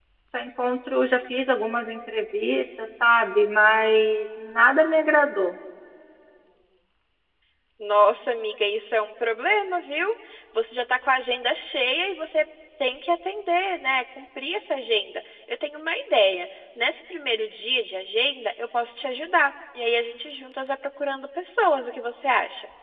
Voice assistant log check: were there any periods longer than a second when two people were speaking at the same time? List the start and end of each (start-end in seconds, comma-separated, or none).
none